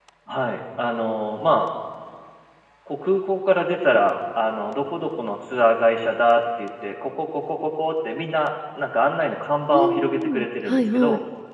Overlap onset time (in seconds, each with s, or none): 9.7 s